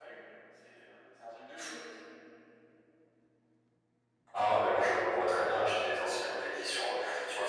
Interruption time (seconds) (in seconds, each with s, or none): none